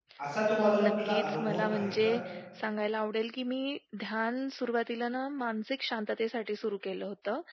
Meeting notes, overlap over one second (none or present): present